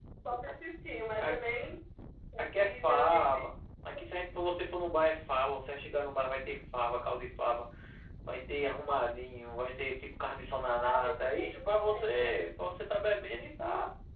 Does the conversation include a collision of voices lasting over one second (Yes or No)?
Yes